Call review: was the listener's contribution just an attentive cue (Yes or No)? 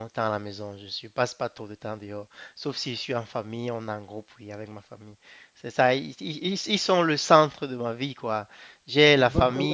Yes